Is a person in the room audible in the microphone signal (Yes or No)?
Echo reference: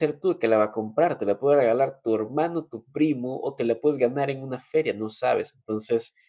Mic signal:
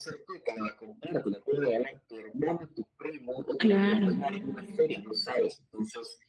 Yes